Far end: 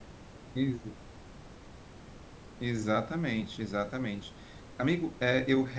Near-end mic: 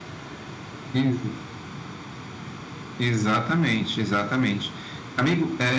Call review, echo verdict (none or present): present